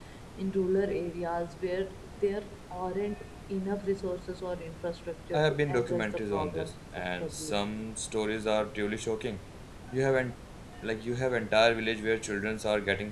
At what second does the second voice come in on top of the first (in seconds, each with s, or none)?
5.3 s